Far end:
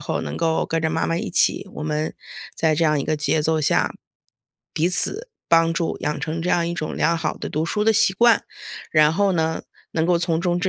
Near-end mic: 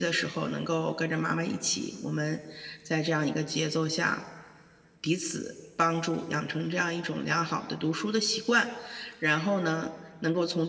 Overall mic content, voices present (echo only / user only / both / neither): echo only